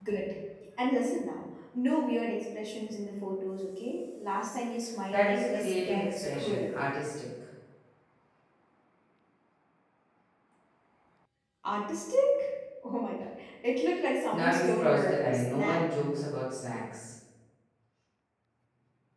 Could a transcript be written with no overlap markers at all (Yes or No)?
No